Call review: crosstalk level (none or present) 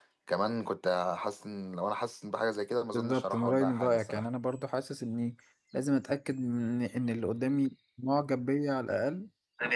present